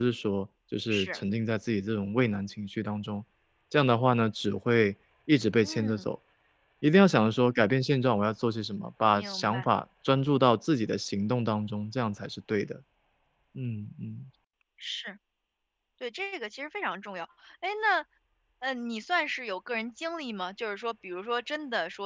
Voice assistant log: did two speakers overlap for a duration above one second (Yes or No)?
No